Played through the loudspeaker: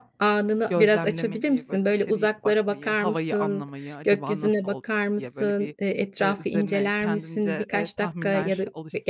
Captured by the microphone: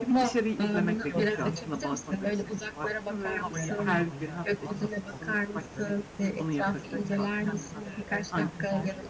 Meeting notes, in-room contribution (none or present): present